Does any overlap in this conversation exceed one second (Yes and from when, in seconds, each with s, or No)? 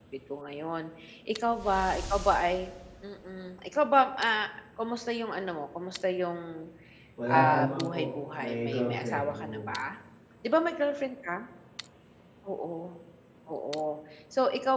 Yes, from 7.3 s